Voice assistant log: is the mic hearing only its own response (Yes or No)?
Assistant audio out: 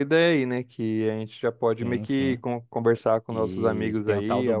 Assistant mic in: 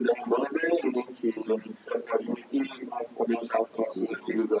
Yes